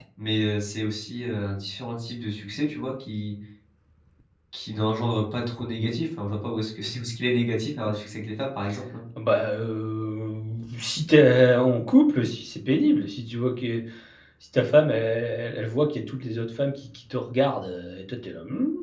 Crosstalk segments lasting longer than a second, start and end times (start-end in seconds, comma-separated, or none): none